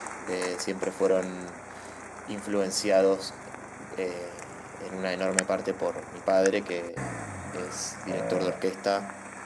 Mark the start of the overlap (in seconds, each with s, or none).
none